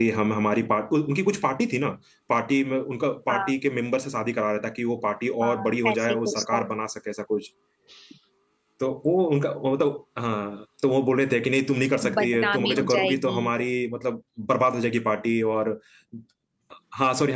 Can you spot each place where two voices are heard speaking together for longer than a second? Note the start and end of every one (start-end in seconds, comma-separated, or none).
5.4-6.6, 12.1-13.4